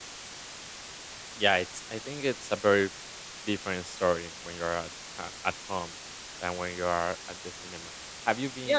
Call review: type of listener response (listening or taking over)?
taking over